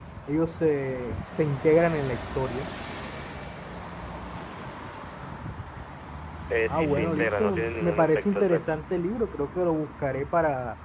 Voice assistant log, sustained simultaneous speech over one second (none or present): present